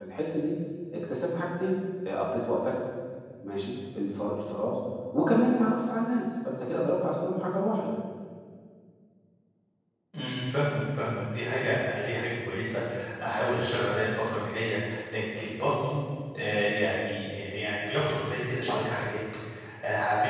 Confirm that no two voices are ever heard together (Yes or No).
Yes